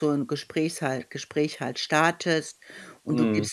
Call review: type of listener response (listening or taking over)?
listening